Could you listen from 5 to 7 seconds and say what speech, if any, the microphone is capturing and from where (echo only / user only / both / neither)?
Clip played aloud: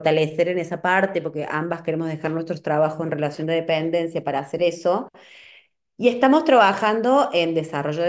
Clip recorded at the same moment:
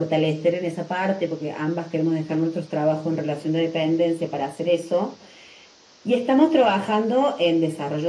echo only